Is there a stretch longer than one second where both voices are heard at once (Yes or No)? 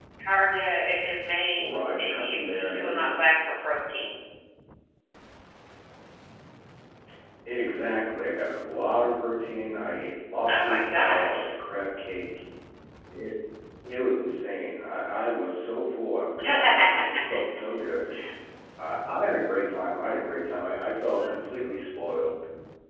Yes